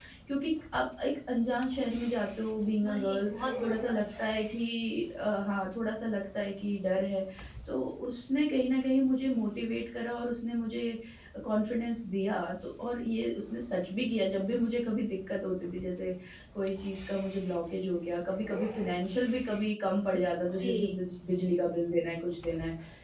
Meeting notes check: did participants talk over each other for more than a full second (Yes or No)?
Yes